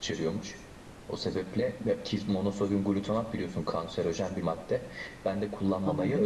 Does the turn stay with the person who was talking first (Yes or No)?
Yes